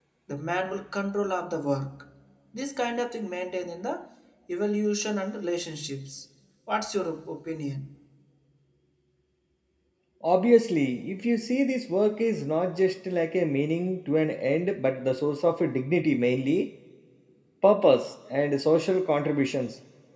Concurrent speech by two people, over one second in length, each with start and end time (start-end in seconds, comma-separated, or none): none